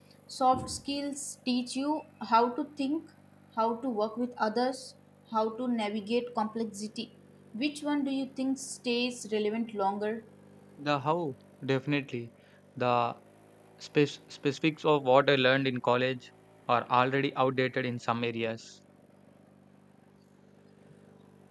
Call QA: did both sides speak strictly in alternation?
Yes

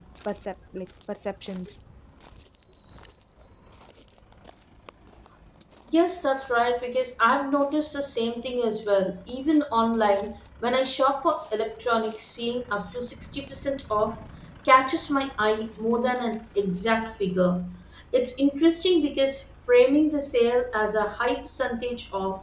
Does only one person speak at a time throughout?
Yes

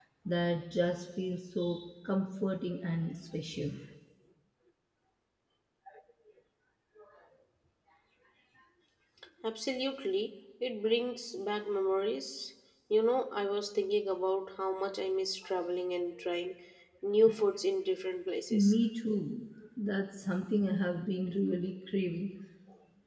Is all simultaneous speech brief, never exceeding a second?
Yes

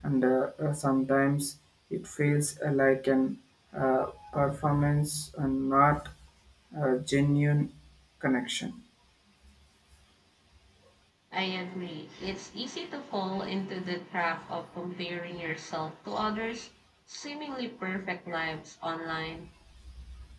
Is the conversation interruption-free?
Yes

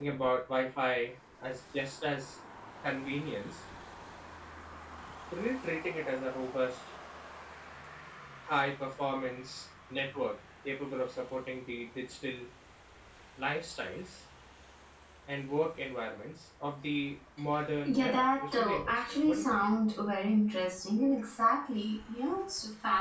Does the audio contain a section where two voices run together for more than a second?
Yes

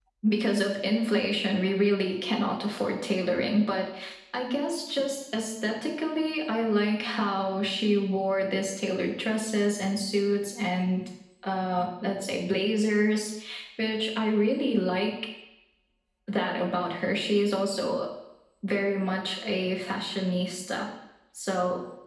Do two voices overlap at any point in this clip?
No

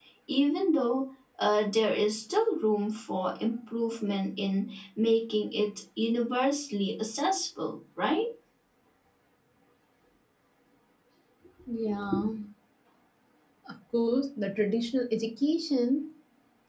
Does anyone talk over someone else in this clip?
No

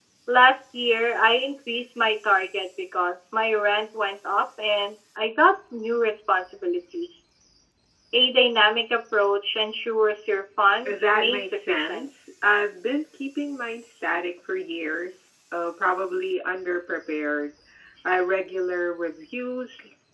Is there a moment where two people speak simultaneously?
Yes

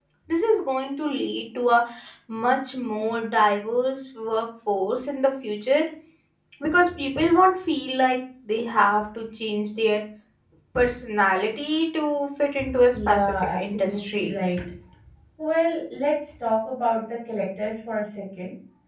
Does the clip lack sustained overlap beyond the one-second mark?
No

